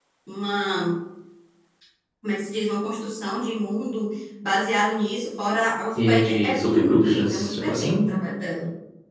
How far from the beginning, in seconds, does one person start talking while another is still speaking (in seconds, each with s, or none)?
6.0 s